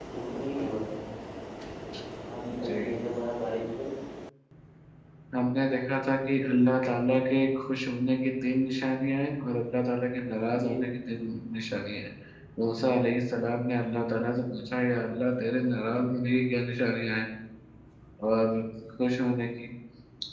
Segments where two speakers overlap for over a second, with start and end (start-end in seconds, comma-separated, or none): none